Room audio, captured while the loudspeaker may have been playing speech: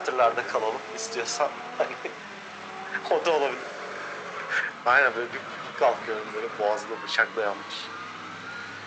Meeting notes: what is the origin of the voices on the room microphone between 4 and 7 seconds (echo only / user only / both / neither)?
echo only